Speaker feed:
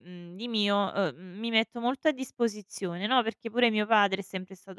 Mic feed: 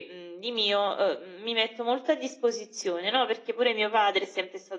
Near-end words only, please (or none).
none